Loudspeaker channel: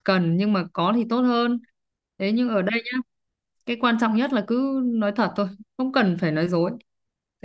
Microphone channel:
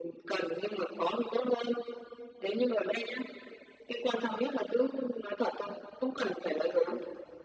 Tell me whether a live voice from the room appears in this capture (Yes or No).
No